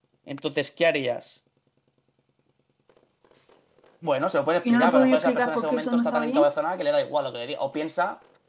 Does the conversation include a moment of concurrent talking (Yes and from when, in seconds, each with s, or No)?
Yes, from 4.6 s